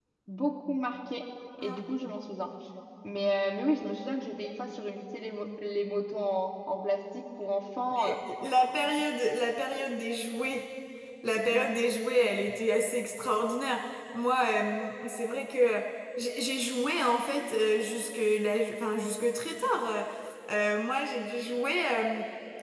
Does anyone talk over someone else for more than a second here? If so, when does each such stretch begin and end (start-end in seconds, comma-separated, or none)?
none